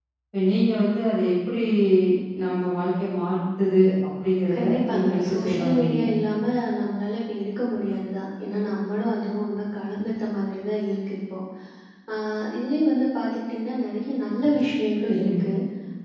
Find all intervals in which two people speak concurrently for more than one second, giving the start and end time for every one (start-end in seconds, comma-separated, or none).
4.5-6.0